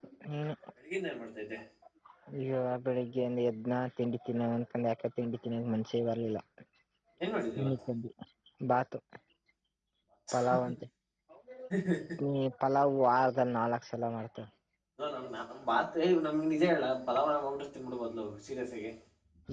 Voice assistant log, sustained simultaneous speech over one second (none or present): none